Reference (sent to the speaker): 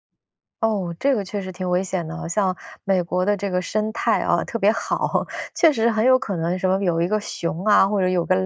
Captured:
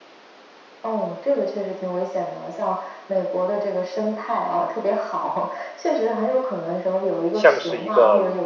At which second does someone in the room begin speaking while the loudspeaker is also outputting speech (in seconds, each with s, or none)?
7.3 s